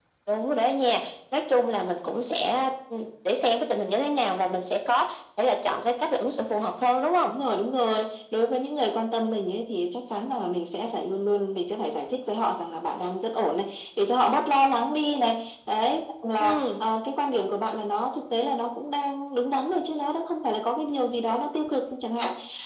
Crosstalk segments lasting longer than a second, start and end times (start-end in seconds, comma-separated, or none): none